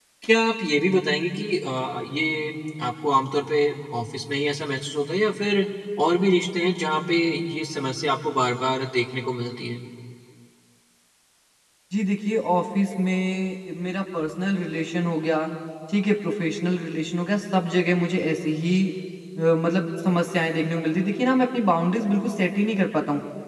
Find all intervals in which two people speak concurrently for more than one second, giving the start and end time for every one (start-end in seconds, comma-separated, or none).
none